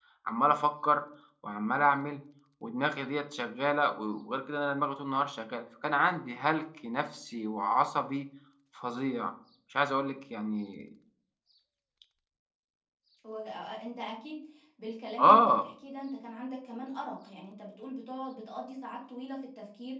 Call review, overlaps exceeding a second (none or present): none